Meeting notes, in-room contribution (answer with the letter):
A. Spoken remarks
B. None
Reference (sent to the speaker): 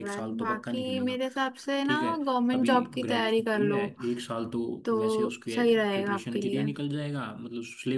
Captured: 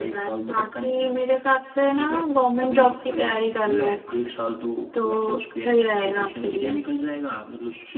B